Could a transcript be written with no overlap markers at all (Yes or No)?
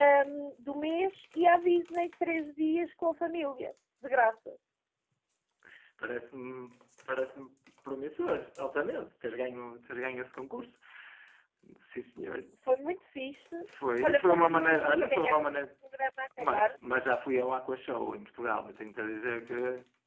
No